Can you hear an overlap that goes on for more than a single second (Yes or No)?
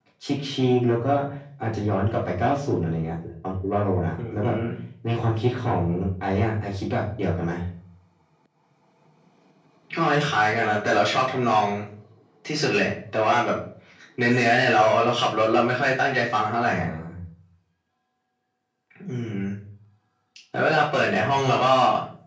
No